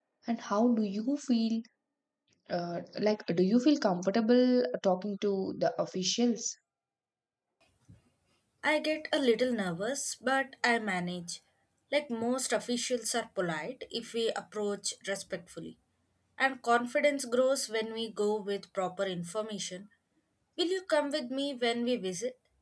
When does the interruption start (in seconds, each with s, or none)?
none